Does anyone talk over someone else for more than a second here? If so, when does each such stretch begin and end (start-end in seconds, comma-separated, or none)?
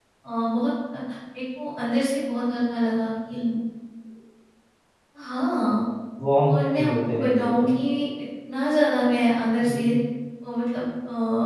6.5-7.8